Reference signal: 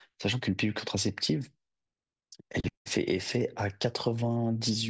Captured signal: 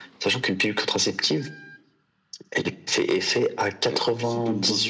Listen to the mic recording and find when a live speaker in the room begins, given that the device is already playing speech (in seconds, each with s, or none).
3.9 s